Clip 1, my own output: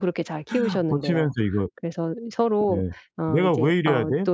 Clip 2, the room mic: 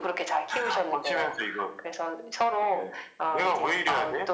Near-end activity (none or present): none